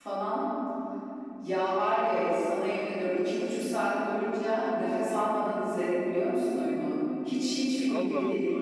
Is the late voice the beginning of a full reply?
No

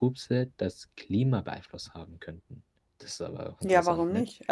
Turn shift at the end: Yes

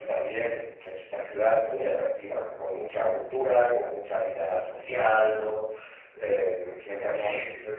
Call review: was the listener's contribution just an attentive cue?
Yes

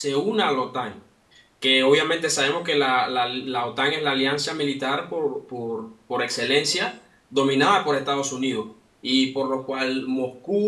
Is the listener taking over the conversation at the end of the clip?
No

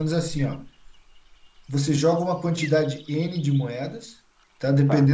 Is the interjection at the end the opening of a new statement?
No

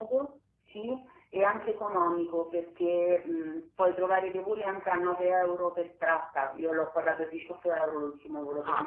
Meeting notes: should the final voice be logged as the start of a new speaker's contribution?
Yes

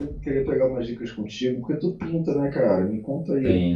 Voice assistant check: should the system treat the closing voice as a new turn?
No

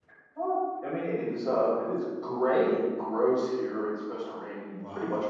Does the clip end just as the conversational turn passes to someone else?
No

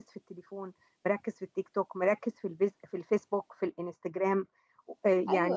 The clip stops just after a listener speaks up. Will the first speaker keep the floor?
No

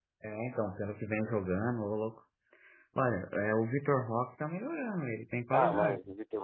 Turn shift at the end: Yes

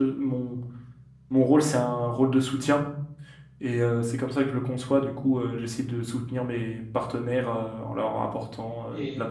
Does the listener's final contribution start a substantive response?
Yes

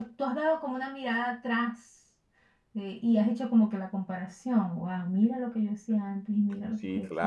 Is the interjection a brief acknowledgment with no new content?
No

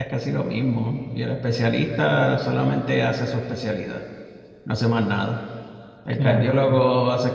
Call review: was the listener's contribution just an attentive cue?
Yes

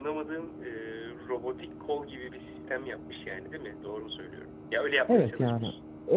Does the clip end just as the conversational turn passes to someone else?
Yes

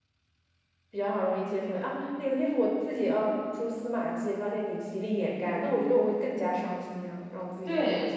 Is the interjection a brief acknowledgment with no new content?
No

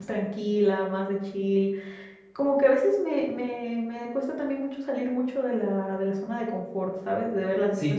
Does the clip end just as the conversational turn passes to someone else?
Yes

